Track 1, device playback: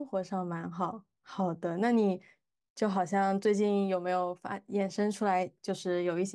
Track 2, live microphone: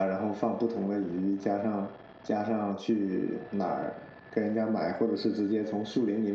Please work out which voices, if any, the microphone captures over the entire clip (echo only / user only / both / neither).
user only